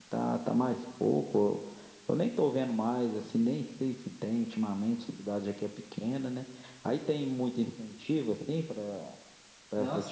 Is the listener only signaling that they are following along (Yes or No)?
No